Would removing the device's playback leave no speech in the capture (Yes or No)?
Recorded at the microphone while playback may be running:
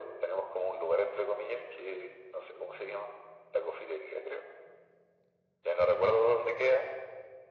Yes